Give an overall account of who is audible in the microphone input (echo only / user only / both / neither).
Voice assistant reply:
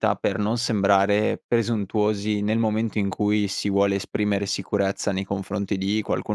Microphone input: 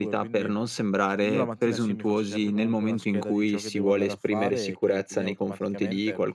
both